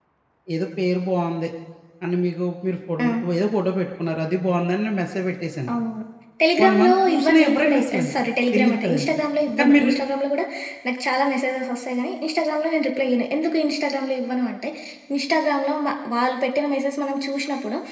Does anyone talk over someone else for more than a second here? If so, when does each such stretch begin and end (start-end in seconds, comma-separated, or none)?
6.6-8.1